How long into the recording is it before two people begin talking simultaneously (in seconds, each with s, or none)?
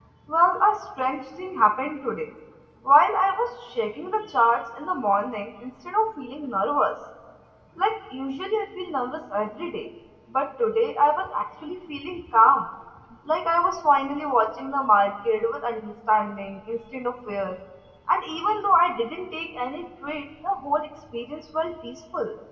none